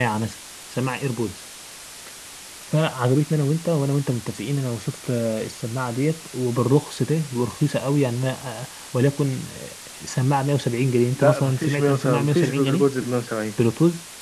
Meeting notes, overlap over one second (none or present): present